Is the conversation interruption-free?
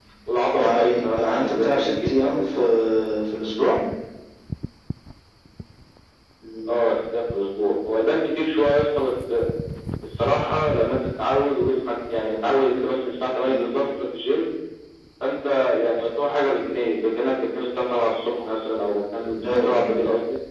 No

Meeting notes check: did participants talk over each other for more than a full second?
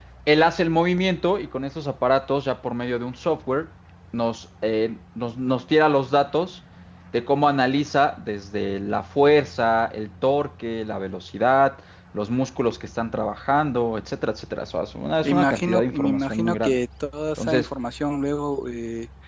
Yes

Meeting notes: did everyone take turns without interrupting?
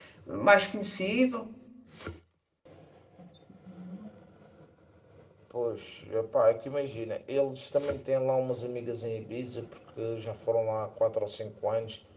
Yes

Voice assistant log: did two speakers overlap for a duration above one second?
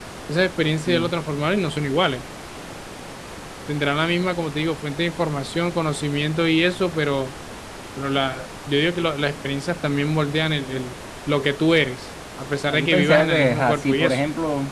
Yes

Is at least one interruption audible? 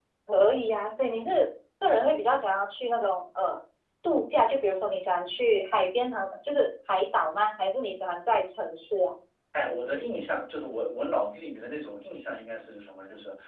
No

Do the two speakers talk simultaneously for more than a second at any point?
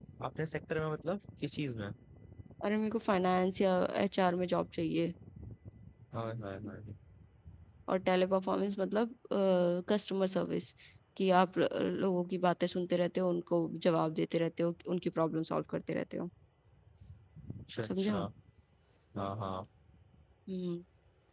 No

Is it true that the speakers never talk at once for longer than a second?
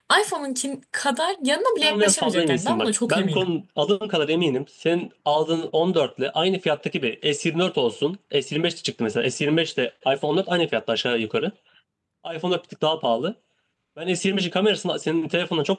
No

